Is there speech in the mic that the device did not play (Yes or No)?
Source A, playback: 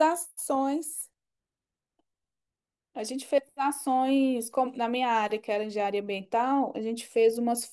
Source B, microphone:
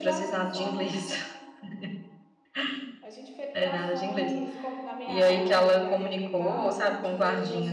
Yes